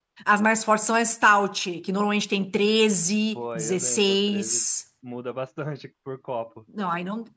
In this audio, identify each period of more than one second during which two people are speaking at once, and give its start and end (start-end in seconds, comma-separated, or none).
3.4-4.6